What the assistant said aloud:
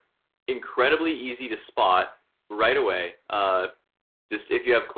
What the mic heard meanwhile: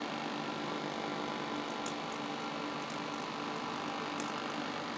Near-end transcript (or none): none